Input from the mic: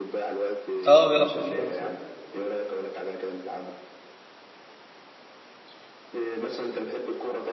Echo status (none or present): present